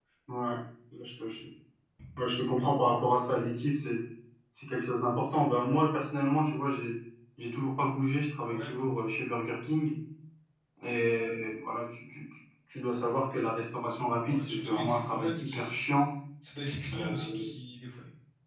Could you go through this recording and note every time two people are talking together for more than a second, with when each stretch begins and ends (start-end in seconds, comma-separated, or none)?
14.3-16.0